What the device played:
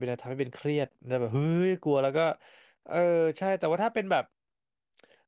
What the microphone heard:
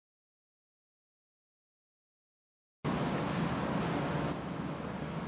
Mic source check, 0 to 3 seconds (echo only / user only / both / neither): neither